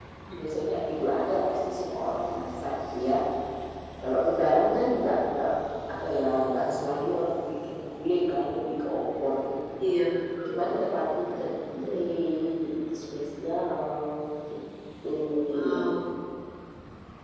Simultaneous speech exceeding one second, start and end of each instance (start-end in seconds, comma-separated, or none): none